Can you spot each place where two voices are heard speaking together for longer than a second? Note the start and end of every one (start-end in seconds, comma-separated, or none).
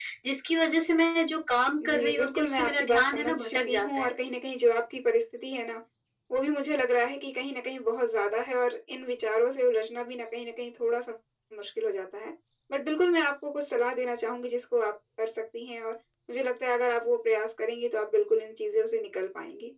1.9-4.1